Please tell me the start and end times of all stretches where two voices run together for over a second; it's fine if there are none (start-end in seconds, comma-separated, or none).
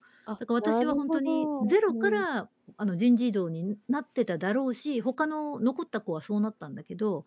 0.6-2.2